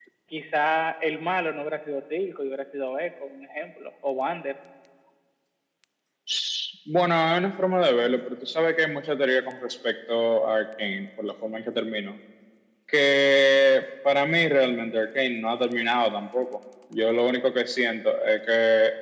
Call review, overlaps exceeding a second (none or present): none